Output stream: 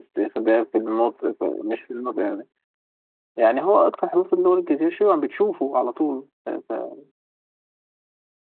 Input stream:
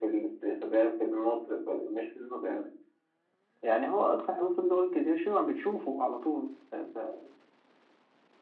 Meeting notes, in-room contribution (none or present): none